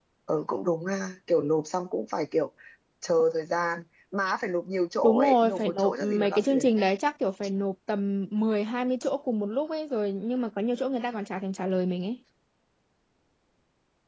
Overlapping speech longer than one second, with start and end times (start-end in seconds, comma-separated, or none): 5.0-6.7